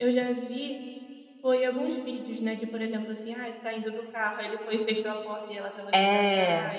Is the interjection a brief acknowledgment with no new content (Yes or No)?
Yes